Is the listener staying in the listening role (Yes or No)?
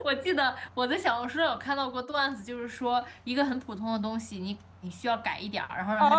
No